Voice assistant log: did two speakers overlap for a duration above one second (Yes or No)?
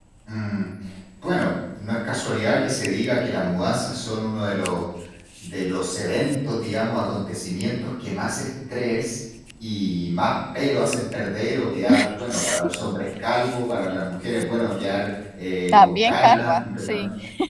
Yes